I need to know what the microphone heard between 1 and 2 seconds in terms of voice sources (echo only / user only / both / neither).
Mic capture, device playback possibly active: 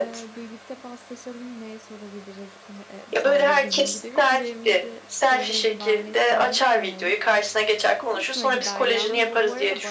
user only